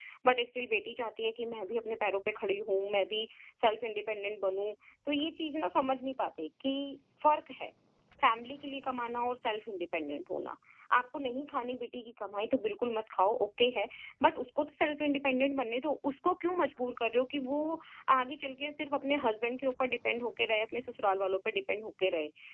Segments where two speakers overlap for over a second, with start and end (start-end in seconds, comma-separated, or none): none